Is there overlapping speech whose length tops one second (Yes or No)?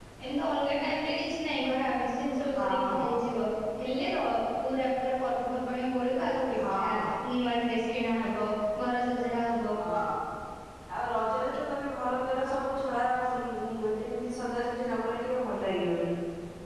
No